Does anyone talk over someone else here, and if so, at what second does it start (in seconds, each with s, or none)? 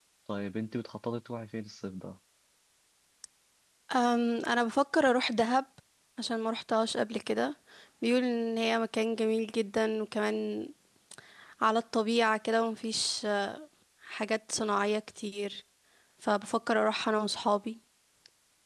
none